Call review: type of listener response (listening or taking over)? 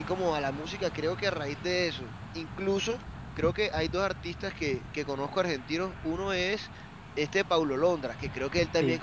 listening